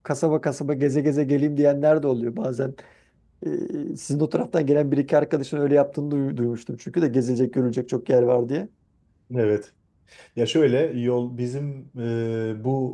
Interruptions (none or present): none